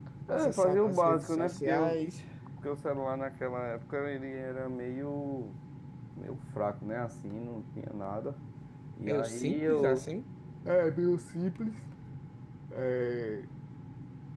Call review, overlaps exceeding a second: present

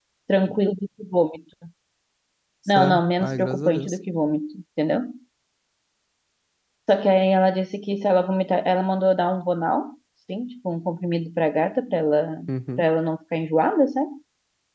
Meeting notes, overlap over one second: present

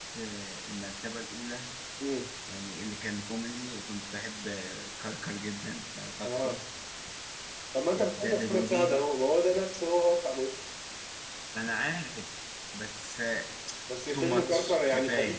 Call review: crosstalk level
present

